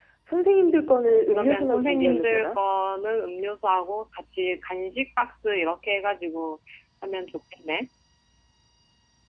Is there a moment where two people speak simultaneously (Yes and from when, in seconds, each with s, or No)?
Yes, from 1.1 s